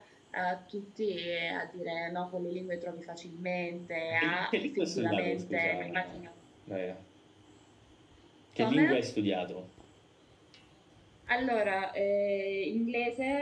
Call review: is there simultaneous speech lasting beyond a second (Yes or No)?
Yes